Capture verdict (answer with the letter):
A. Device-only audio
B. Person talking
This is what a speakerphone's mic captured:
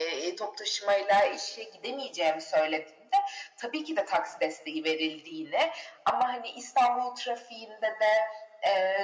A